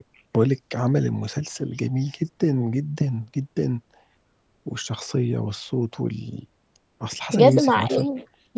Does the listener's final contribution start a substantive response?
Yes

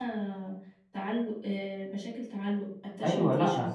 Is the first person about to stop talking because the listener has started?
Yes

